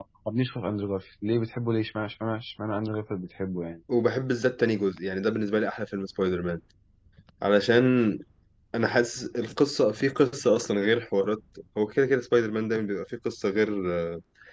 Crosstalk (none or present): none